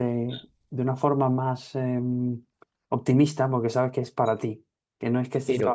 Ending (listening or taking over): listening